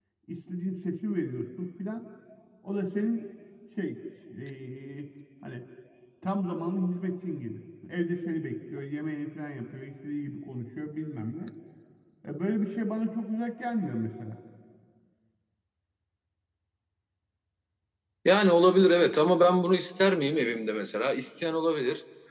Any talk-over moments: No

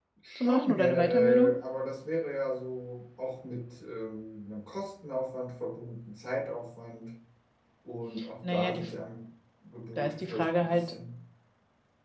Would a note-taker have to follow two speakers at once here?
Yes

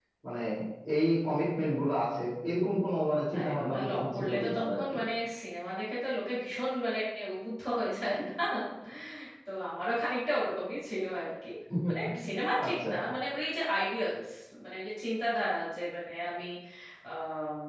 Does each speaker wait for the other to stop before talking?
No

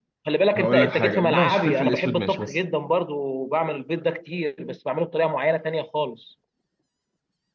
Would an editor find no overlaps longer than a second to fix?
No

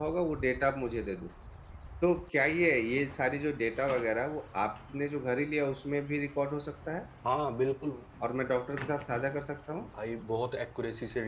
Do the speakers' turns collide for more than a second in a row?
No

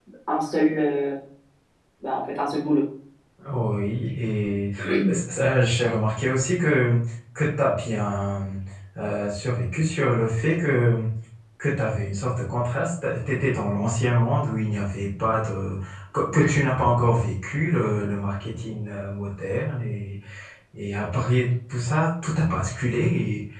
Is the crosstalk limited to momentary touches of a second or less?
Yes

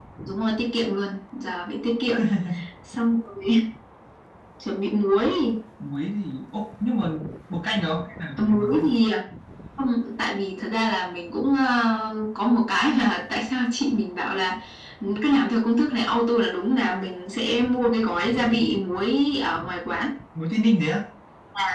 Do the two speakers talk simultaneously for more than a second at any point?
No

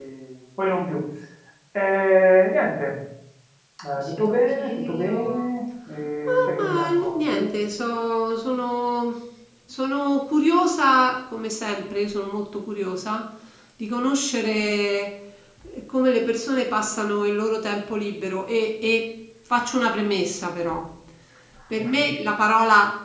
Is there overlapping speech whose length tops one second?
Yes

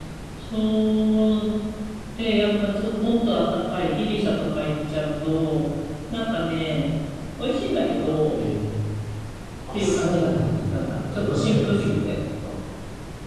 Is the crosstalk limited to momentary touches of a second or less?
No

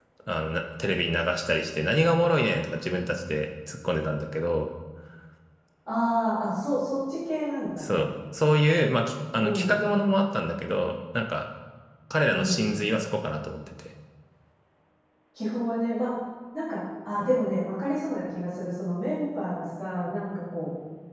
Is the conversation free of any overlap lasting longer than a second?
Yes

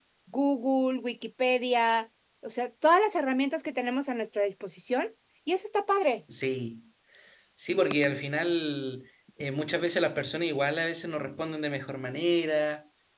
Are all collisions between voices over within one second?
Yes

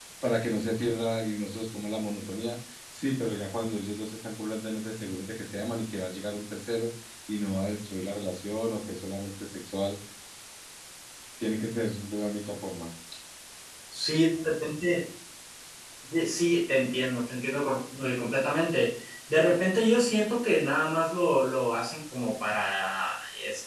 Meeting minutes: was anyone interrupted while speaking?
No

